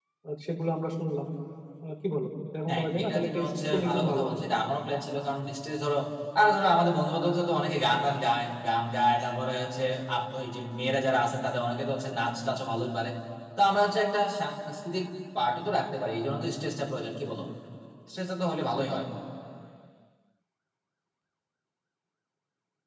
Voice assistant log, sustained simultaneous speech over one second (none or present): present